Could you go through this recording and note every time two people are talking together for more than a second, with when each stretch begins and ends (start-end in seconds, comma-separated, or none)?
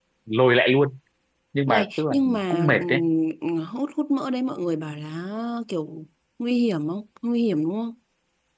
1.7-3.0